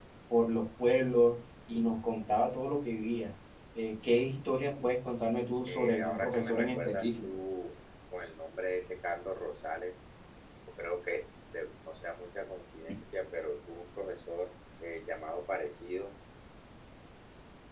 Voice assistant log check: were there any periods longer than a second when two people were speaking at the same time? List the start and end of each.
5.7-7.2

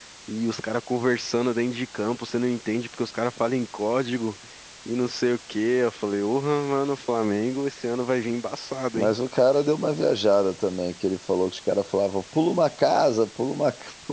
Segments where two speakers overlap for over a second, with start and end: none

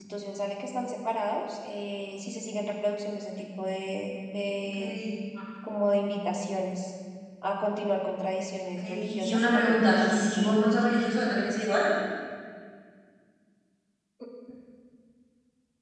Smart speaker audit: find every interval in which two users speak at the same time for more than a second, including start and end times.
8.8-10.6

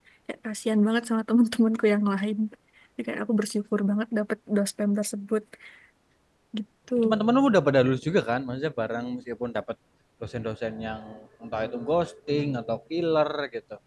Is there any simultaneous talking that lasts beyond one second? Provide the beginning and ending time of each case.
none

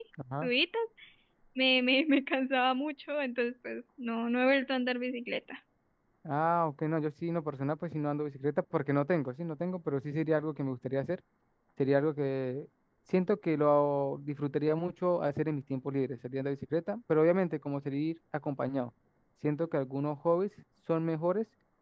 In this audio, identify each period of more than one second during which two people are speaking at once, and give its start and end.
none

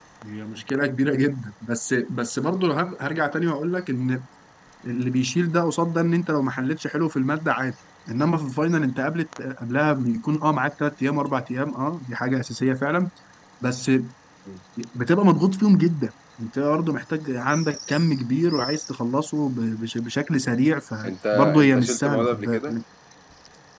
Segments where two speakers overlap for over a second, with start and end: 21.0-22.8

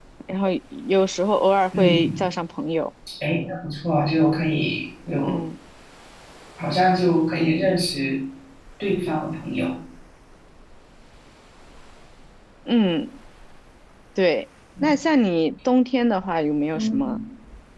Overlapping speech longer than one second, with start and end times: none

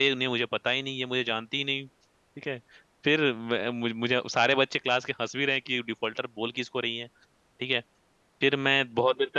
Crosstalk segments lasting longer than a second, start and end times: none

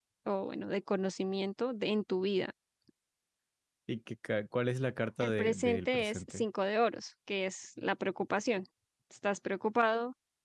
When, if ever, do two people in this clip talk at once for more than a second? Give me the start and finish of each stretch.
5.2-6.4

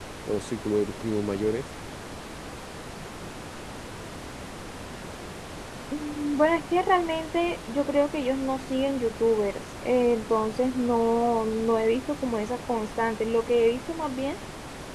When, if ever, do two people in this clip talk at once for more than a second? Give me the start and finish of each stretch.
none

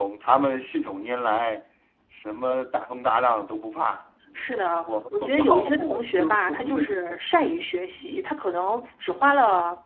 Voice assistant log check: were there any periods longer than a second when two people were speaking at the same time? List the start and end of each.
4.3-7.2

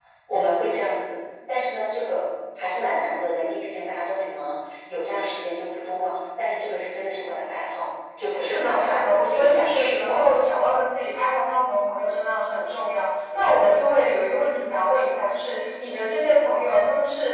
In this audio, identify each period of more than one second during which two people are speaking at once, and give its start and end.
8.5-10.3

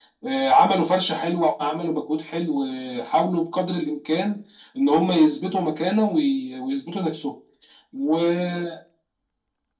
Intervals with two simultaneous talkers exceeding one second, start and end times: none

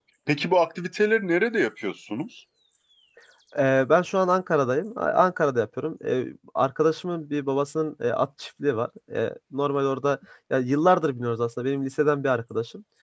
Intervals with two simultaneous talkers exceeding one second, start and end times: none

